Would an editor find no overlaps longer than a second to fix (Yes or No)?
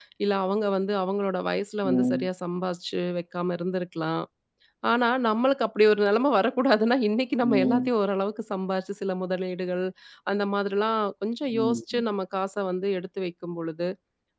Yes